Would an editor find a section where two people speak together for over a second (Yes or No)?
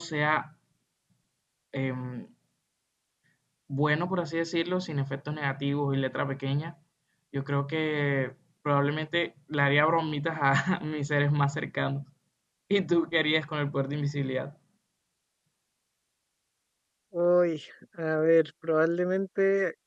No